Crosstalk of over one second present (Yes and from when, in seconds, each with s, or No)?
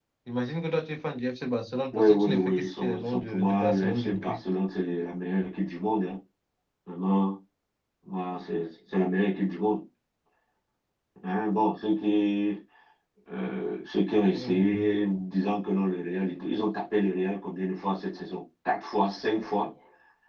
Yes, from 1.9 s